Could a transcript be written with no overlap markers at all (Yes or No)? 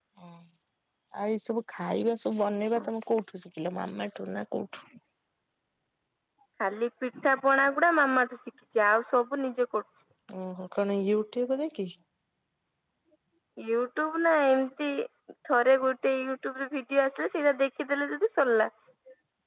Yes